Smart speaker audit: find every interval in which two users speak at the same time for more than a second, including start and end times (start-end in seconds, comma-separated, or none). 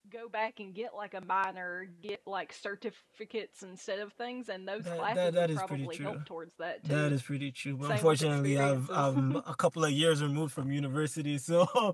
4.8-6.2, 7.8-9.2